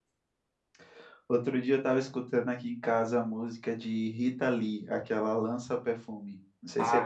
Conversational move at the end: taking over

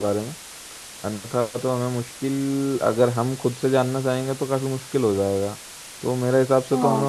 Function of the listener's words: listening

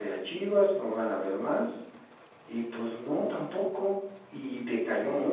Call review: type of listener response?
listening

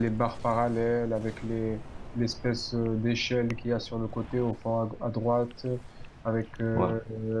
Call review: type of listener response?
listening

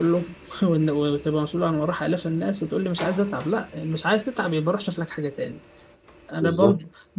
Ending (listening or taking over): listening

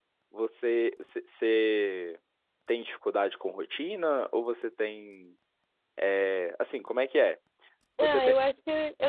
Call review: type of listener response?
taking over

